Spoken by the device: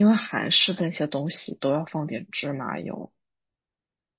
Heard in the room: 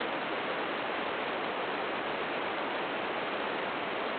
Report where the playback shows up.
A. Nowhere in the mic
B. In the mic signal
A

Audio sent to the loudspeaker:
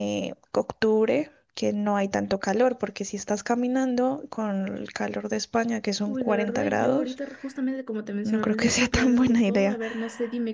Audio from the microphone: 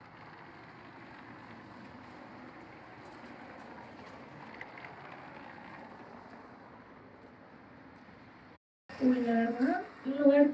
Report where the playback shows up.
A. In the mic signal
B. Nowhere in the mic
B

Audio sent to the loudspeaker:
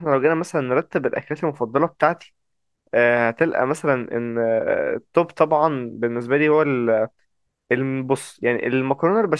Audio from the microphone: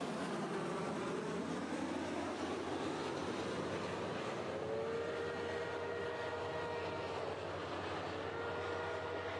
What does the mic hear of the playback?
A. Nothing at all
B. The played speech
A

